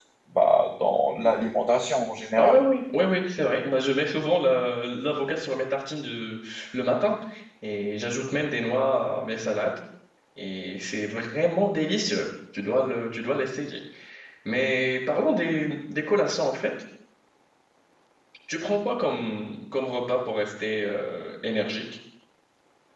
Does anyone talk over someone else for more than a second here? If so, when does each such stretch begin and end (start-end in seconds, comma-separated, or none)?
none